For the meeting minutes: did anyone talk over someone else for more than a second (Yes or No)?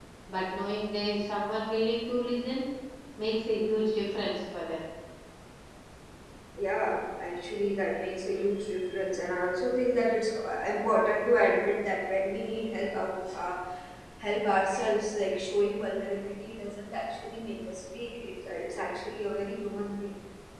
No